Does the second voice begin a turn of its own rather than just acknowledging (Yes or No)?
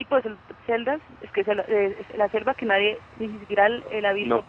Yes